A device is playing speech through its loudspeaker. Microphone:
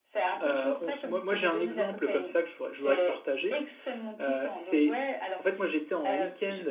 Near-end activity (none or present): present